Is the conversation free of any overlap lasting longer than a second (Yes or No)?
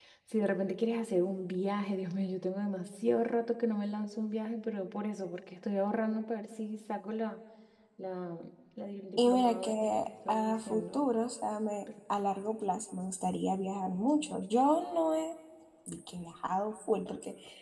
No